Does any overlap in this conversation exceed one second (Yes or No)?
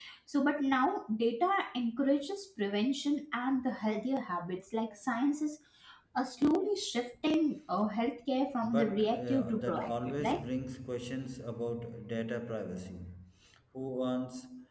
Yes